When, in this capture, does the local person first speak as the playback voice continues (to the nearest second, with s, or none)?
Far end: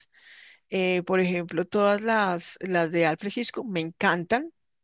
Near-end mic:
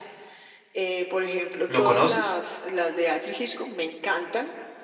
2 s